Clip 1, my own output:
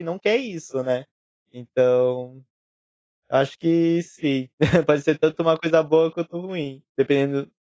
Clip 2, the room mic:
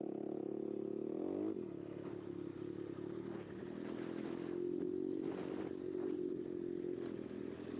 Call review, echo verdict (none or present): none